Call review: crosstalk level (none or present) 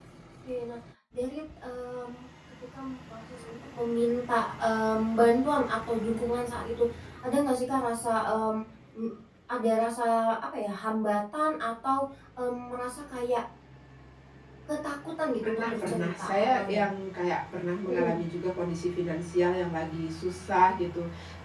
present